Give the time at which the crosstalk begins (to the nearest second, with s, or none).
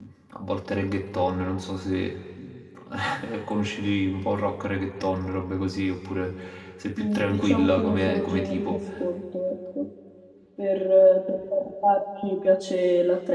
7 s